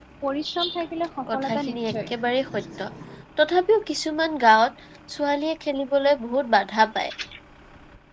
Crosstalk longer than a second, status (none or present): present